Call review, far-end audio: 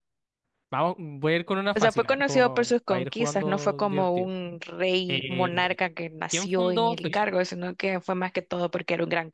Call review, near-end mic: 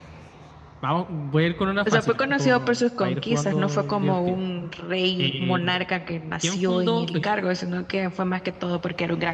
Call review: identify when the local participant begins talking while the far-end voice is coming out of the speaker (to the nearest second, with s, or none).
none